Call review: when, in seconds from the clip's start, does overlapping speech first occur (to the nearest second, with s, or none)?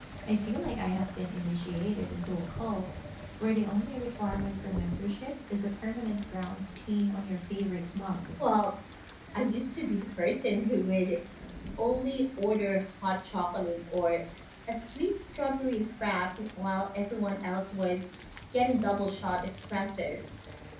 none